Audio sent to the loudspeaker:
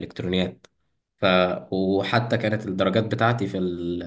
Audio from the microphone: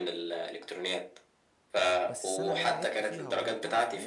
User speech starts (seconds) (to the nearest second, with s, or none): 2 s